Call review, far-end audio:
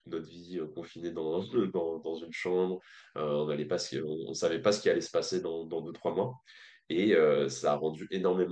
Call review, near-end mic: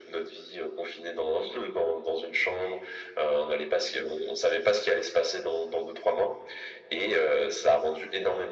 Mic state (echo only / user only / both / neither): echo only